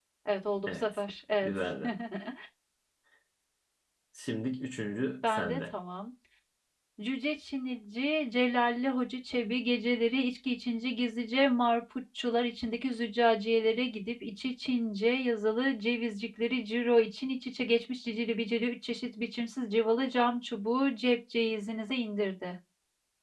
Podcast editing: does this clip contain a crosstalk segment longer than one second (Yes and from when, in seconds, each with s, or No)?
No